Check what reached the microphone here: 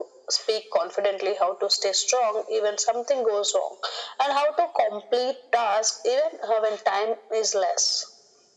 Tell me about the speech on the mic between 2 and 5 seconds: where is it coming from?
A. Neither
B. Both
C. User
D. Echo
D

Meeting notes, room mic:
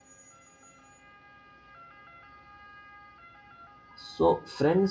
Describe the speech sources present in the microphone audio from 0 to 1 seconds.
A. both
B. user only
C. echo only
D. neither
D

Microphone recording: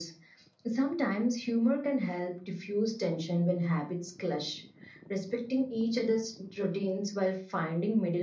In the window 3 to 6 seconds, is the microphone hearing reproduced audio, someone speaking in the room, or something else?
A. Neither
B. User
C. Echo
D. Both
C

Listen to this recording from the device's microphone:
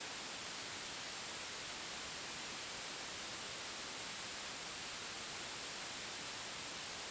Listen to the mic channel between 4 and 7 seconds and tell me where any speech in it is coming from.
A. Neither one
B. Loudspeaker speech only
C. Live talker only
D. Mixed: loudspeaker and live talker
A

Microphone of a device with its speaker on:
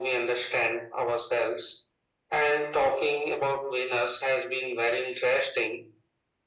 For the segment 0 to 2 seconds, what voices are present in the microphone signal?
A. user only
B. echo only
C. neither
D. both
B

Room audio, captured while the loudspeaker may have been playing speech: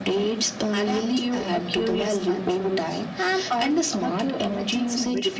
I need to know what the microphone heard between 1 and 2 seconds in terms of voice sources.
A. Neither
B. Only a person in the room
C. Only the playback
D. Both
C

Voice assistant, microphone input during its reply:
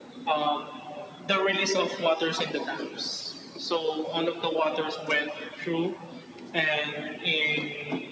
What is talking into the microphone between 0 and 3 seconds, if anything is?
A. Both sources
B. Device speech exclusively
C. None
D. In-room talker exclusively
B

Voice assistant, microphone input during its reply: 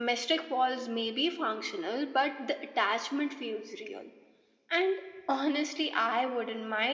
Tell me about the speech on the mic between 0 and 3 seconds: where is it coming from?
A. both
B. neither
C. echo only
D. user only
C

